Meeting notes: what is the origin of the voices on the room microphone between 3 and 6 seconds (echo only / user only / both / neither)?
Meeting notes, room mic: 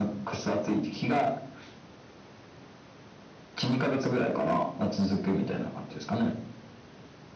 echo only